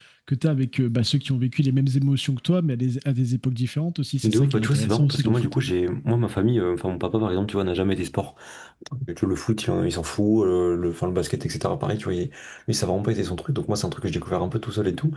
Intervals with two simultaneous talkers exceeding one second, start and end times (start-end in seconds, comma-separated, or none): 4.2-5.5